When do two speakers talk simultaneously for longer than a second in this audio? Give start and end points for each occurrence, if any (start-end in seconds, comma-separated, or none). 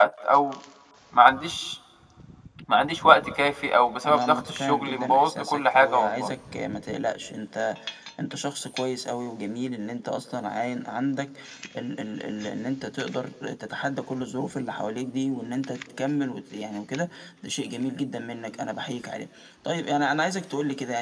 4.0-6.3